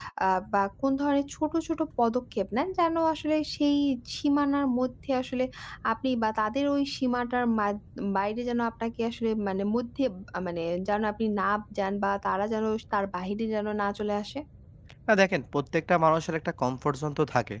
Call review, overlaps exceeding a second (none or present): none